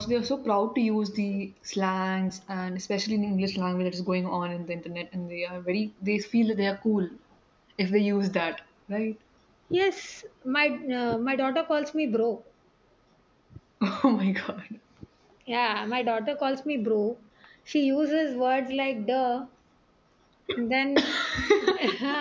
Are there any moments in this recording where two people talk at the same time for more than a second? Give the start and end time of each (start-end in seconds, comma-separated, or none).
none